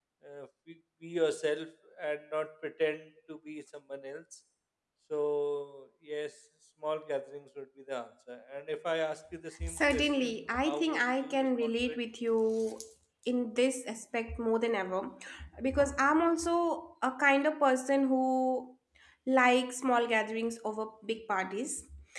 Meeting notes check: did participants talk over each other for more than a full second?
Yes, from 9.6 s

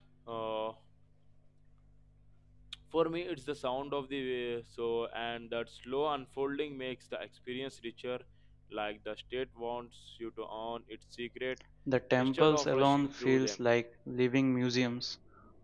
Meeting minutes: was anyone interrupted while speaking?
Yes, from 12.2 s

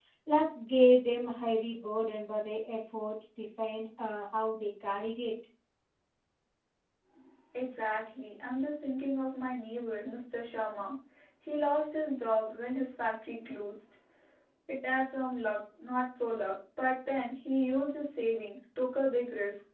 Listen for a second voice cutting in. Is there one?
No

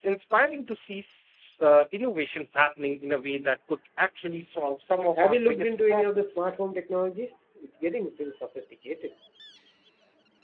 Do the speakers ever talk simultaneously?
Yes, from 5.2 s

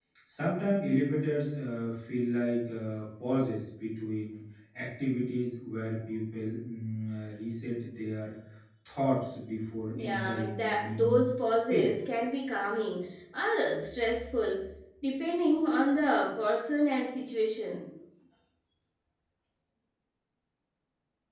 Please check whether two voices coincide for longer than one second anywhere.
Yes, from 10.0 s

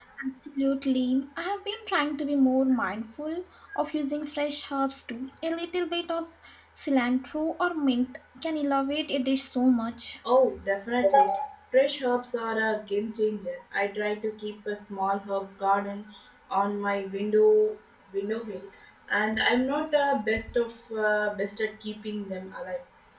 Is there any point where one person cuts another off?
No

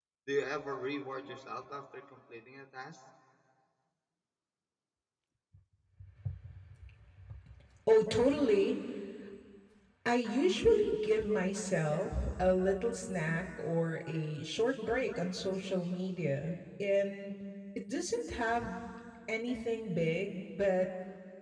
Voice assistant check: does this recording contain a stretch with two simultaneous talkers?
No

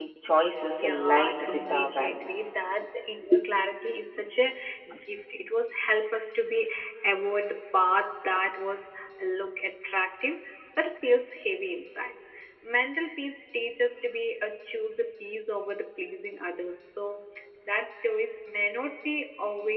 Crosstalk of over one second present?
Yes, from 0.8 s

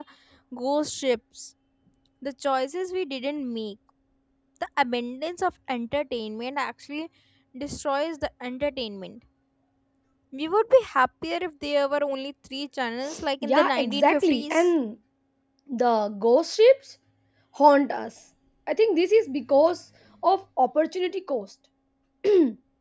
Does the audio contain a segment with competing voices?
Yes, from 13.4 s

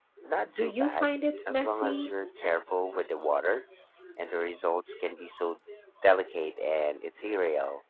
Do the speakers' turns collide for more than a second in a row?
Yes, from 0.5 s

